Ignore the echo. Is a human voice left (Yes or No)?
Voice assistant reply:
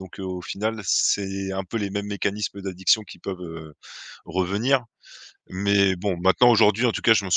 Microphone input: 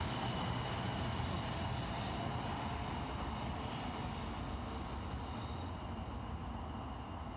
No